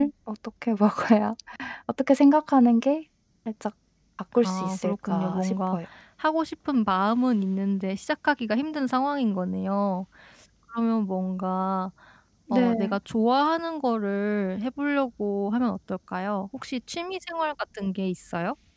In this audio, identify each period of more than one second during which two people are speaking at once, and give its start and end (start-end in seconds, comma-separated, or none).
4.4-5.8